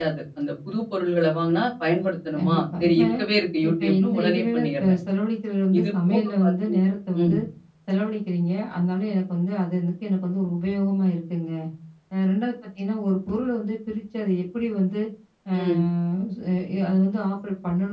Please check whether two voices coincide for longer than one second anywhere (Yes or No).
Yes